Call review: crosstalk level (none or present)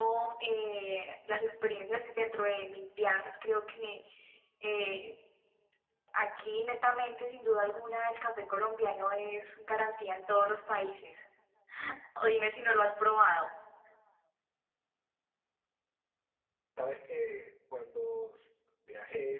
none